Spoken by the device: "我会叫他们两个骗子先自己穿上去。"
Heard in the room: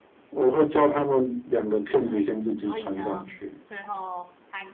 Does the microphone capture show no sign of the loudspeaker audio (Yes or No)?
No